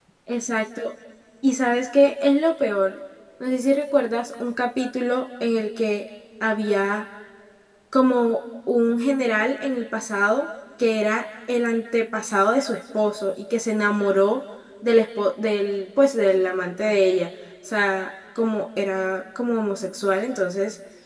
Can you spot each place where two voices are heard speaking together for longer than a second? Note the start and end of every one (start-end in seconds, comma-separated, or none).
none